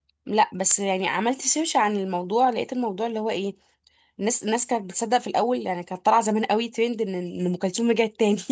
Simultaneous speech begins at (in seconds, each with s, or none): none